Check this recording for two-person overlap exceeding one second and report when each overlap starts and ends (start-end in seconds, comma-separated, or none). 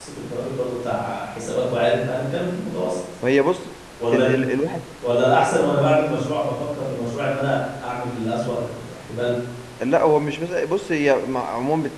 none